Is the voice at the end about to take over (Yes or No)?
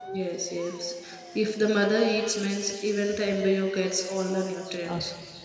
Yes